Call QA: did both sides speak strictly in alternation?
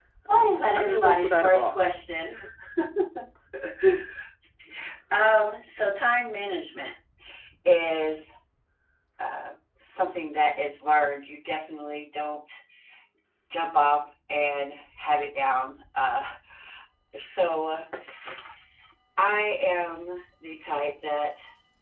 No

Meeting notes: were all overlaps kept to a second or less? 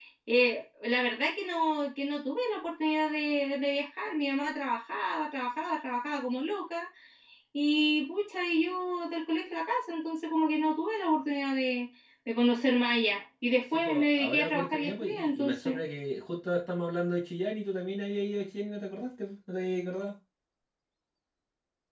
No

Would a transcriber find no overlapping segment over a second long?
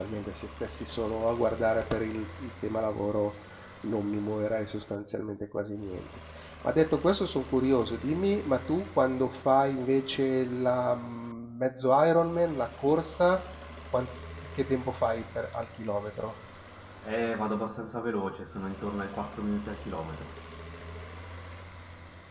Yes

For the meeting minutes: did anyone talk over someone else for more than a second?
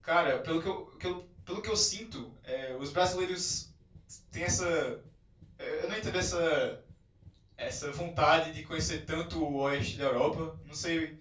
No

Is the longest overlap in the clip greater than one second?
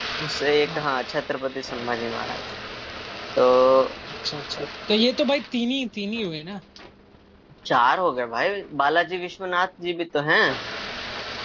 No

